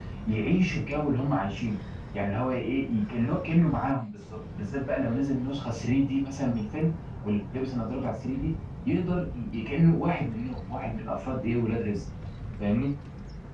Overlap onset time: none

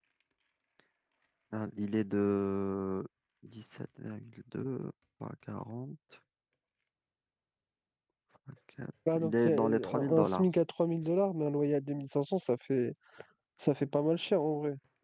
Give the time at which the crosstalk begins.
9.2 s

